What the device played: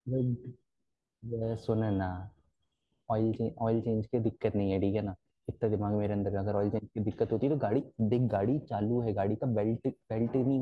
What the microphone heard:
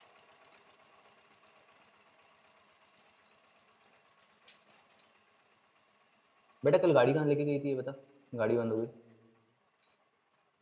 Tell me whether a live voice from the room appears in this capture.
Yes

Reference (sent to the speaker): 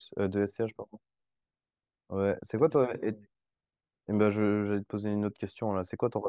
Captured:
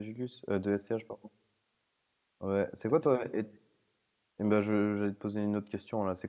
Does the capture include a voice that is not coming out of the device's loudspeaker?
No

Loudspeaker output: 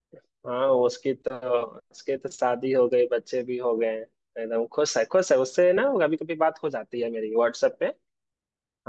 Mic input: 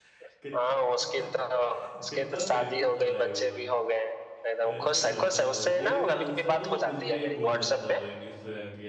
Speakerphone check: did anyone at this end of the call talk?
Yes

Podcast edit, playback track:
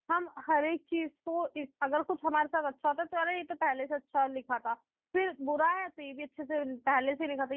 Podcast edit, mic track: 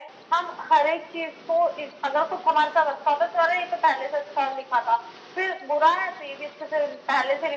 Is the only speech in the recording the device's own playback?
Yes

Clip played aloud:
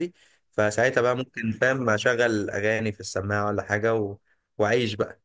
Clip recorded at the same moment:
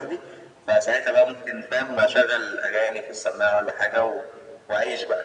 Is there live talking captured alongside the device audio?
No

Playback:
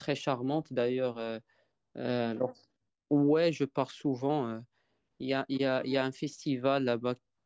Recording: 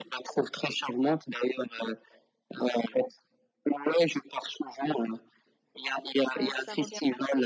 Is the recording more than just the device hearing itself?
Yes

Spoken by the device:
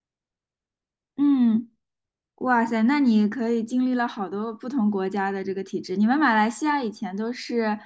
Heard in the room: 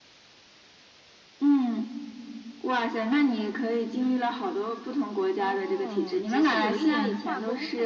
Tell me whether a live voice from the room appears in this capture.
Yes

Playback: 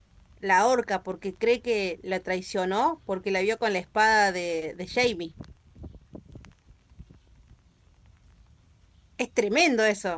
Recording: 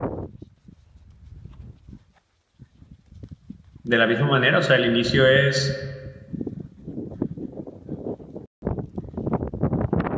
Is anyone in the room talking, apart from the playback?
Yes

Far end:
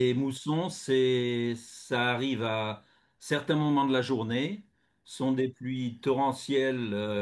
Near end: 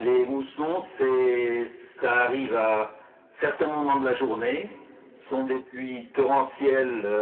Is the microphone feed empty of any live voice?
Yes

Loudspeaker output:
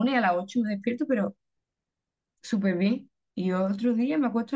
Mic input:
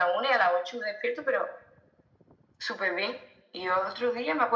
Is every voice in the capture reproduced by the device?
Yes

